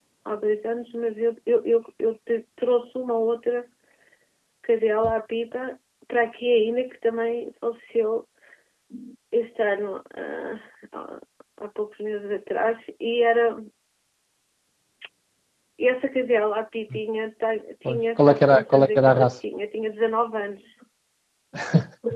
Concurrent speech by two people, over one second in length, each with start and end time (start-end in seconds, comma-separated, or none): 17.8-19.3